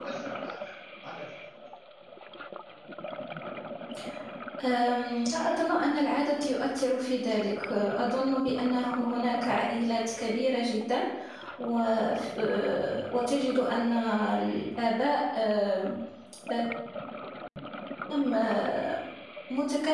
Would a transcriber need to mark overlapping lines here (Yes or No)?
No